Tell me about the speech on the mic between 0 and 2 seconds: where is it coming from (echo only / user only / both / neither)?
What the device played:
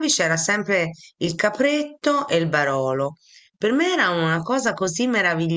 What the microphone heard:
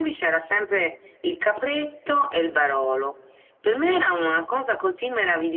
echo only